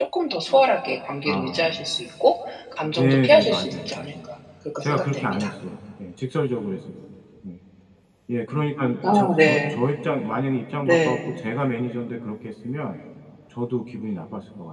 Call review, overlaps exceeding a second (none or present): present